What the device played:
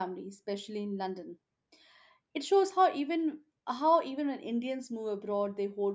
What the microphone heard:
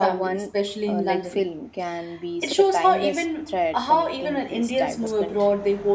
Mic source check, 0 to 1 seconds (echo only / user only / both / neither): both